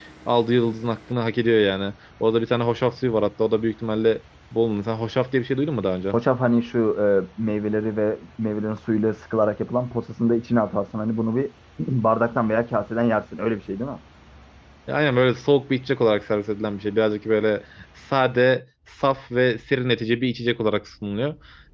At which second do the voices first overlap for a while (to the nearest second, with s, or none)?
none